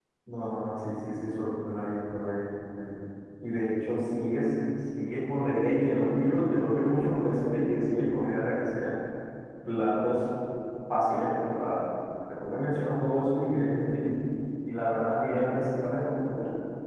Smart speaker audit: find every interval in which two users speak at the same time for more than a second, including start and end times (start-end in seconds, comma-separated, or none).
none